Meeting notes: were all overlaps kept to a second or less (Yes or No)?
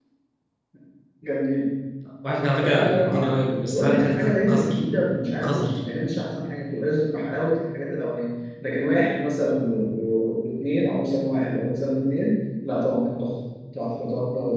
No